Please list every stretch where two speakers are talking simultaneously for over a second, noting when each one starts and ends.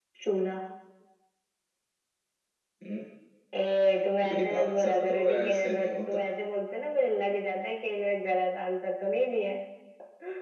4.3-6.2

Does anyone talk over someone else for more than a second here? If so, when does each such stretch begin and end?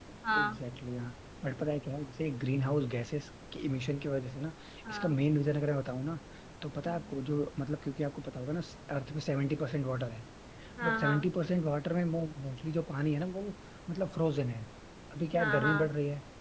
none

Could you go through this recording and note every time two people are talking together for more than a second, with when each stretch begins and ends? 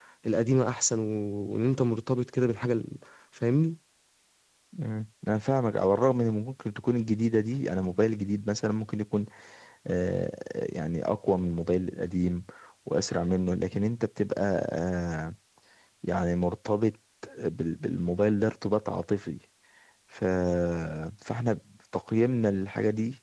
none

